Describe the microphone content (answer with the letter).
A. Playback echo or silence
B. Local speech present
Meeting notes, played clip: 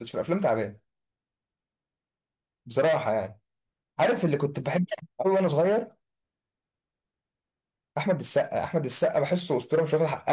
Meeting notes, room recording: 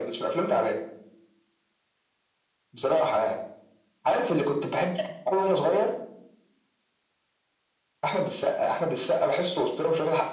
A